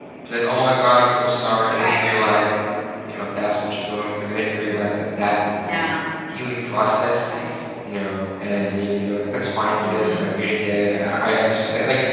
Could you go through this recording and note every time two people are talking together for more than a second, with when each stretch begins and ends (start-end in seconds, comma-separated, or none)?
none